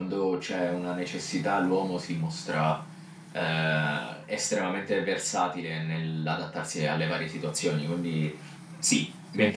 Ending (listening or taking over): listening